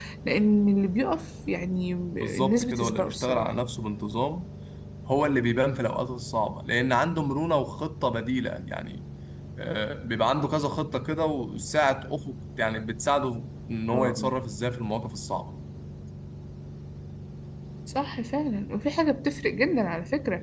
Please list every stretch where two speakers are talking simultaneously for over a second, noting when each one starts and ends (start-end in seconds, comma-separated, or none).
2.2-3.5